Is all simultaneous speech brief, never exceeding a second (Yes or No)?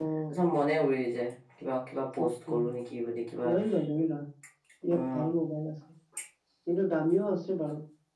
Yes